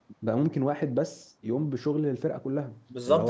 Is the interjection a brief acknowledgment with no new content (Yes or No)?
No